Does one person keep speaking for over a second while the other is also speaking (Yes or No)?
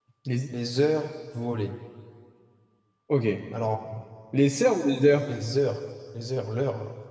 No